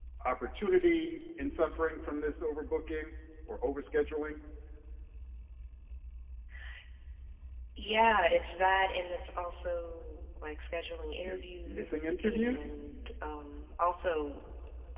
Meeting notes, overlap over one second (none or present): present